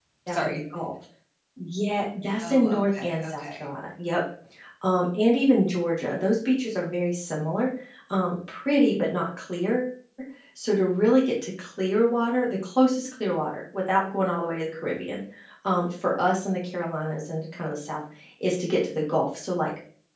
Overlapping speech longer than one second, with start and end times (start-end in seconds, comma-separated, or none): 2.4-3.6